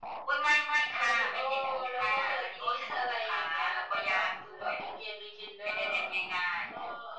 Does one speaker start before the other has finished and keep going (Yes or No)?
Yes